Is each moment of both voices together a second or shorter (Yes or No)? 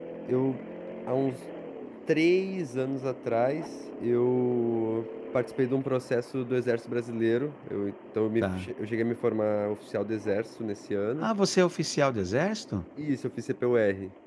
Yes